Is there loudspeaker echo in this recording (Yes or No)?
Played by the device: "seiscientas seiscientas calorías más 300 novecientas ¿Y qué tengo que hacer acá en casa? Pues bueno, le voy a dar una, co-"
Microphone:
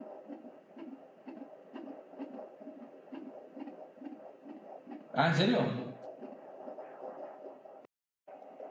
No